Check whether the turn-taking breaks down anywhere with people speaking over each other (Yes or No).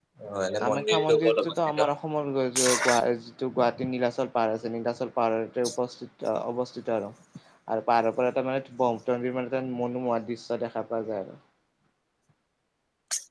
Yes